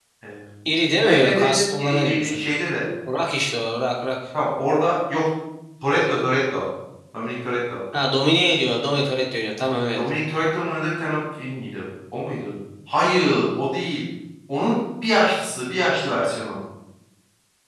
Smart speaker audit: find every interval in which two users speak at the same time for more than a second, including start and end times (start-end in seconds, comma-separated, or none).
1.0-2.4